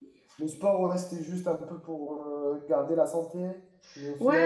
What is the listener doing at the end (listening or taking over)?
taking over